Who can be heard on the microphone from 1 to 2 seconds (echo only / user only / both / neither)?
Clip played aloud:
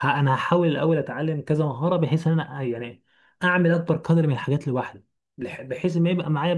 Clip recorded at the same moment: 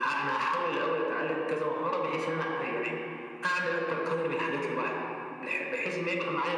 echo only